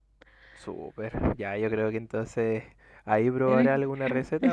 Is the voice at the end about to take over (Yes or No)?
No